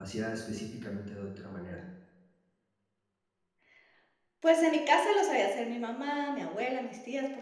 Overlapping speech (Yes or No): No